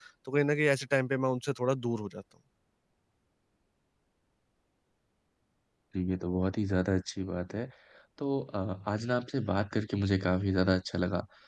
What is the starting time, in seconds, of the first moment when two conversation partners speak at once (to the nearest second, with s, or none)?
none